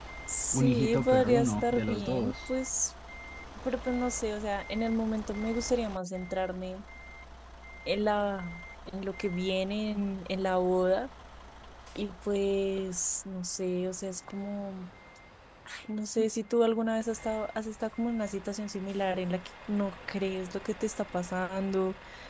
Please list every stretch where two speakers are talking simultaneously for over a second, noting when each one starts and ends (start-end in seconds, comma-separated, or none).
0.5-2.5